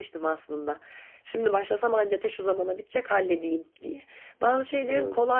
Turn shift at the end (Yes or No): No